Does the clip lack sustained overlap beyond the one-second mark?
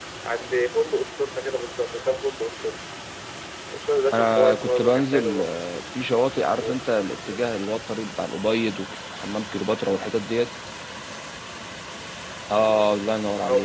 No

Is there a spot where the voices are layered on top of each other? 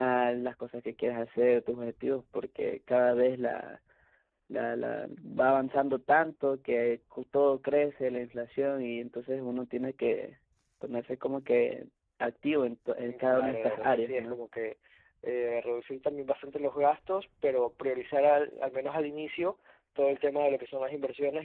Yes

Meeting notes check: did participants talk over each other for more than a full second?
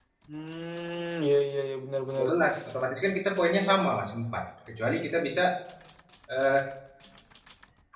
No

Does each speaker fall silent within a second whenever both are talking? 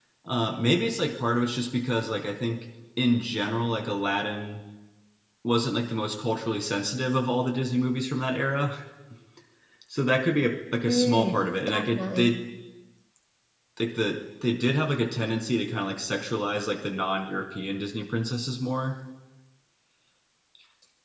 No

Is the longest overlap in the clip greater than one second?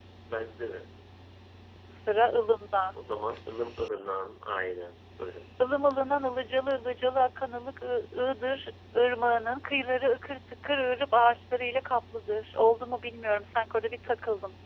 No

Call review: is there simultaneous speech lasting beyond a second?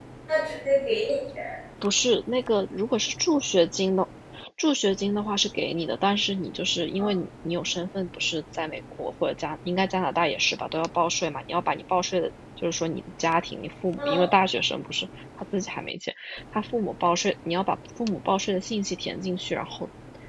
No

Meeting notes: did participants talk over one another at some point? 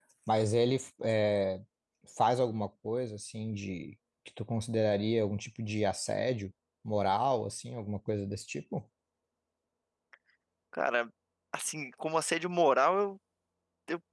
No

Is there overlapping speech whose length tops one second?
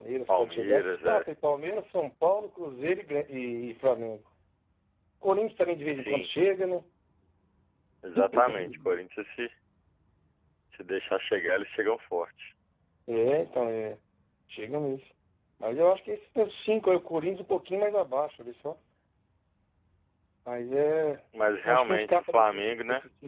Yes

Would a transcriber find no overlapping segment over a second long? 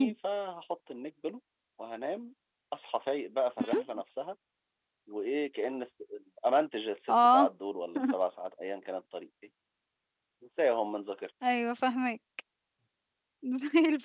Yes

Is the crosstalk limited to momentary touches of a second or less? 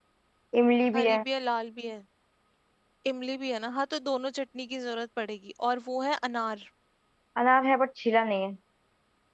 Yes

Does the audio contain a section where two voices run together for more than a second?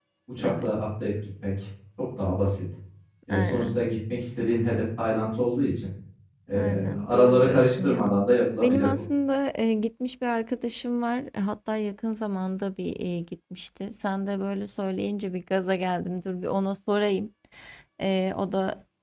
Yes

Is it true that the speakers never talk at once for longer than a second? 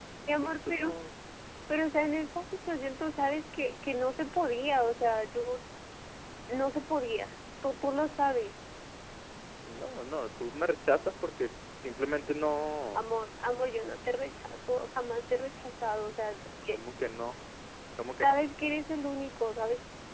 Yes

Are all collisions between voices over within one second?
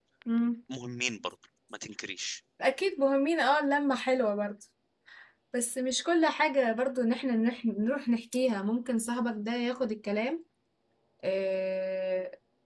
Yes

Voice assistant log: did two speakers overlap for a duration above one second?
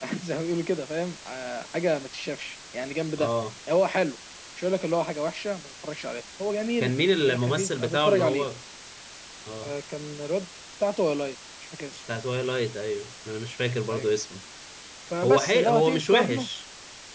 Yes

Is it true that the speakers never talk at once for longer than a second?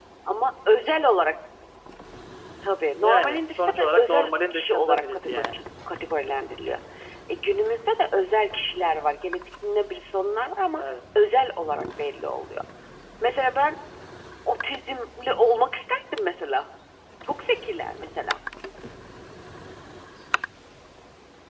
No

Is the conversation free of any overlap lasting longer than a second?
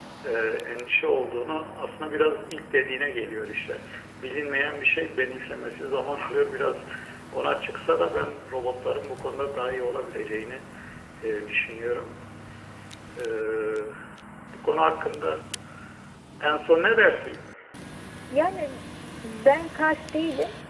Yes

